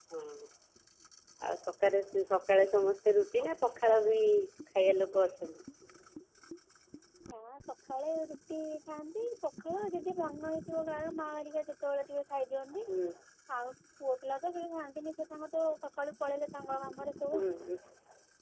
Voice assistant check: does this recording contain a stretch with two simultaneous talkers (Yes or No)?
No